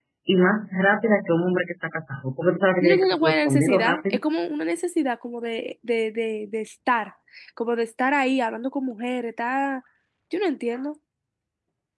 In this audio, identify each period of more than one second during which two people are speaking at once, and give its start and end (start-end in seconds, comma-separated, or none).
2.8-4.2